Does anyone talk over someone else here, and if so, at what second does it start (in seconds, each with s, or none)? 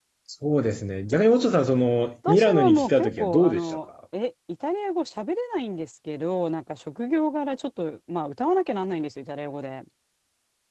2.2 s